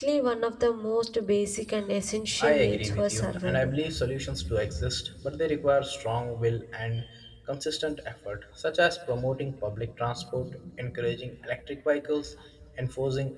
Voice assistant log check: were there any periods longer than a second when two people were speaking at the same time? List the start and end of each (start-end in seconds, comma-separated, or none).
2.4-3.7